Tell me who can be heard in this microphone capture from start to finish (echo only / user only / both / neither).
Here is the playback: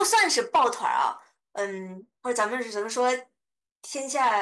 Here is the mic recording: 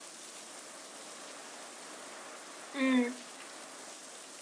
user only